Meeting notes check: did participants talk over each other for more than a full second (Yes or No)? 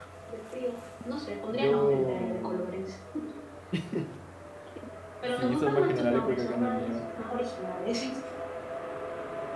Yes